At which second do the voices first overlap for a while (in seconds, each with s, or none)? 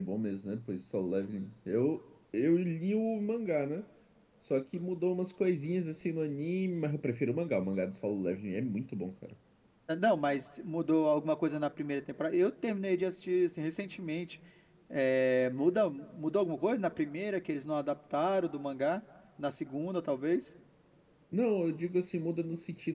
none